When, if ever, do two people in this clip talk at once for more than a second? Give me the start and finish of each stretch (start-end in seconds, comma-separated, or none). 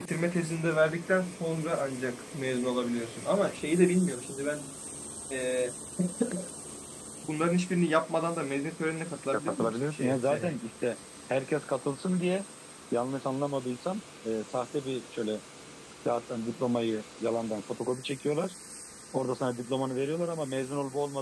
9.3-10.6